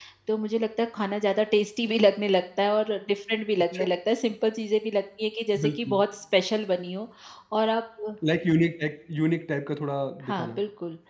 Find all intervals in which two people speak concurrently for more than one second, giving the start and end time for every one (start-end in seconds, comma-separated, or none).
none